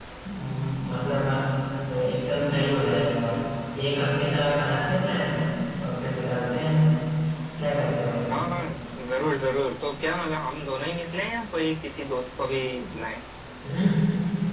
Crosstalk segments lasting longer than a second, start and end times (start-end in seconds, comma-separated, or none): none